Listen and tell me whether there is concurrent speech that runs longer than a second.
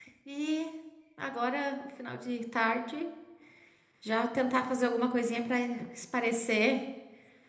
No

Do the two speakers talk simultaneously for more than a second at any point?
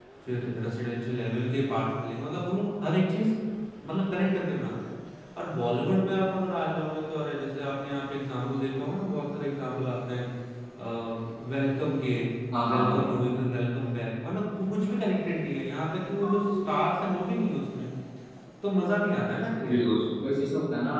No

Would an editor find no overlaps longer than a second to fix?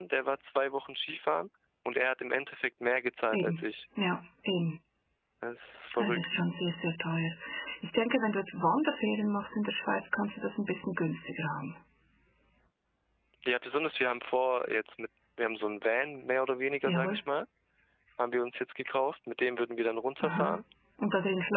Yes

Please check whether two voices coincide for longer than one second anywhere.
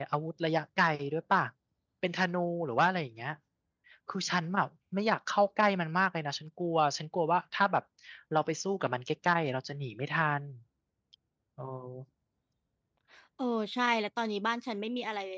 No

